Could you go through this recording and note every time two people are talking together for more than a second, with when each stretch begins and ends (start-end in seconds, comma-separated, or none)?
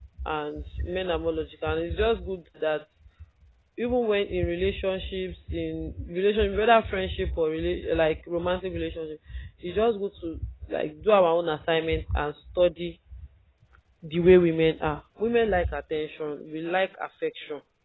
none